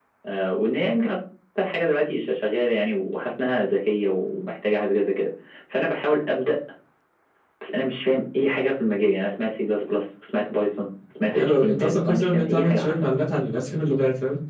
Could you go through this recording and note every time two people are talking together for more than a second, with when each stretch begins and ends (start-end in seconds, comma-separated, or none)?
11.3-13.0